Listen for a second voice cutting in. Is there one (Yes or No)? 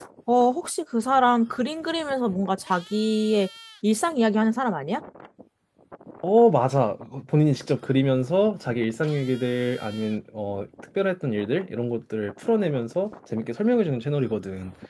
No